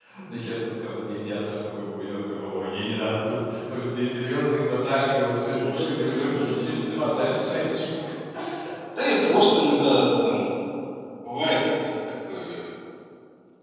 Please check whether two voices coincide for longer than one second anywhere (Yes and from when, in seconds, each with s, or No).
Yes, from 5.3 s